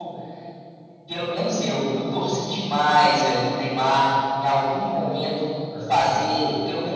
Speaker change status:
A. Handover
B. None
B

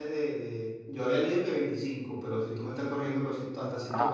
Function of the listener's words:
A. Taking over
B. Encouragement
A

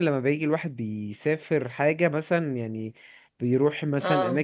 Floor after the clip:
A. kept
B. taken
A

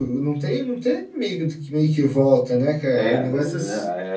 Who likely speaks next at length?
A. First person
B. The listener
B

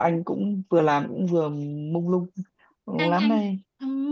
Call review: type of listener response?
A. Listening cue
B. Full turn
B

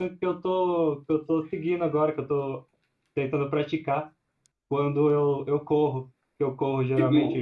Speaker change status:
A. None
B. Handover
A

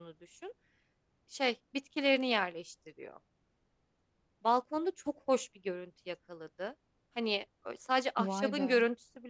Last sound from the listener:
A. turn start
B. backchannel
B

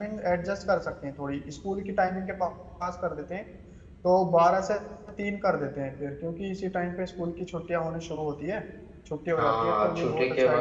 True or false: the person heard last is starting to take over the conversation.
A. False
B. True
B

